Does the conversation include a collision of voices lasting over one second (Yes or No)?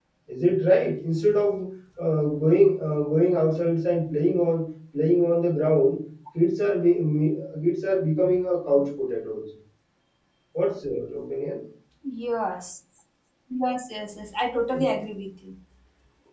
No